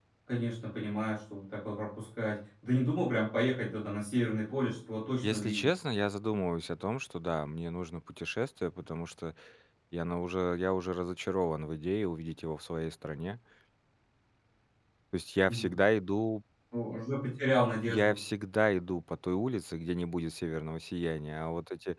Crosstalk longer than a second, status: none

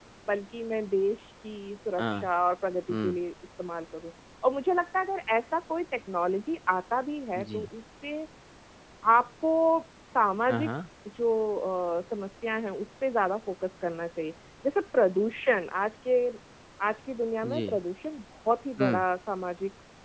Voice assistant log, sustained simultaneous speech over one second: none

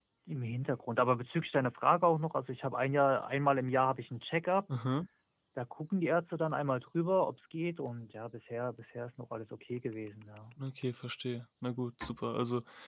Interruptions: none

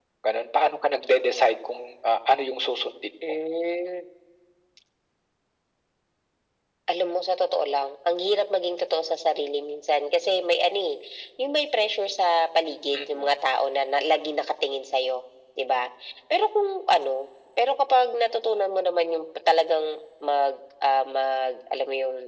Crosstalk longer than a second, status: none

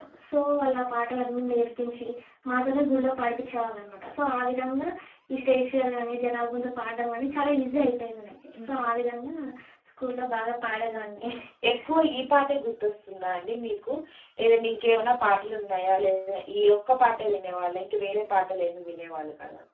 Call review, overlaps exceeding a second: none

